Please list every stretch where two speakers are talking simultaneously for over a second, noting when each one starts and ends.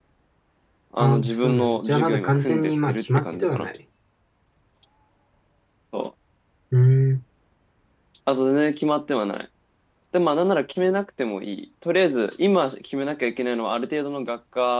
1.0-3.7

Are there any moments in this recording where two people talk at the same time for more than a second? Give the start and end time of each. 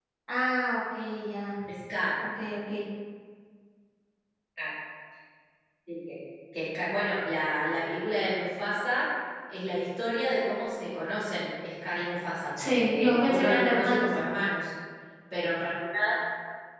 12.6-14.1

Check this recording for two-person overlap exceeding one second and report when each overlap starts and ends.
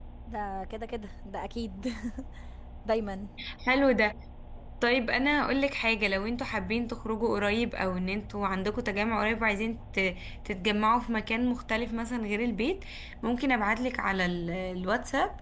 none

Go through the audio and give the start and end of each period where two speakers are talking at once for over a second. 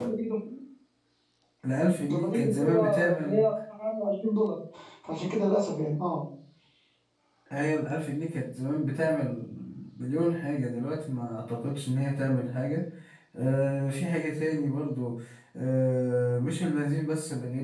2.1-3.4

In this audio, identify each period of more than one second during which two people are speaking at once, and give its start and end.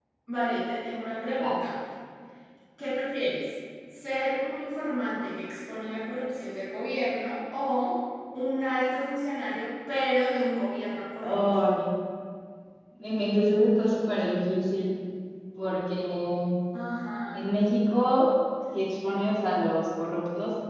none

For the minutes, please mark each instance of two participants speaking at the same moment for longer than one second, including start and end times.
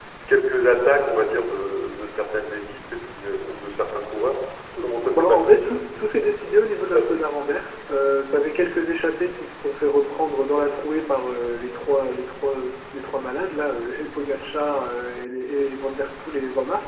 4.8-6.1

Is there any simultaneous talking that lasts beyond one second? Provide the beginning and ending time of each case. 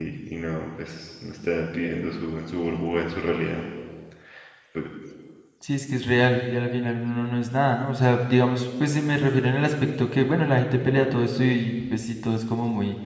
none

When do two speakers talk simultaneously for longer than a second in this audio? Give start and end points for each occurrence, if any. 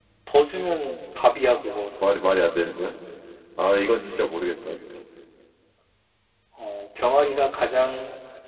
none

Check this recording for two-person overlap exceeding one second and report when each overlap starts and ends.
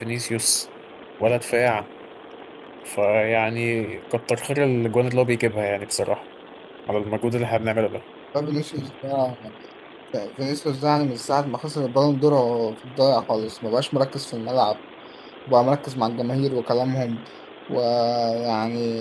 none

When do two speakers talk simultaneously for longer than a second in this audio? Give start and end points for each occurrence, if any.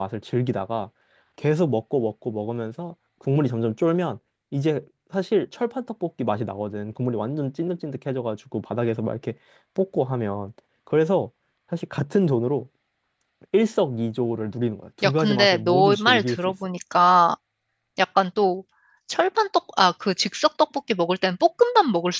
15.0-16.5

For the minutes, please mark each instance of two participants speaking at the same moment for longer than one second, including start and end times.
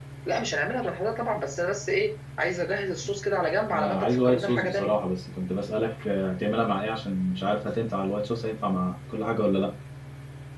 3.7-4.9

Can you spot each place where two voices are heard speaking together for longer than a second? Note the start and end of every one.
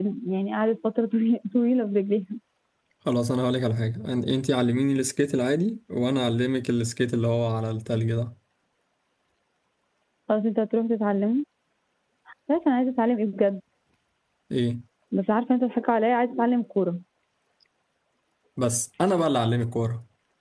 none

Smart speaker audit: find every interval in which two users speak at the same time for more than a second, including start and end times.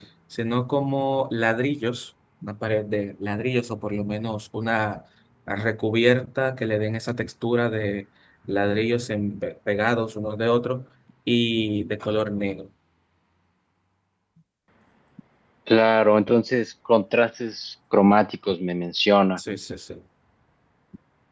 none

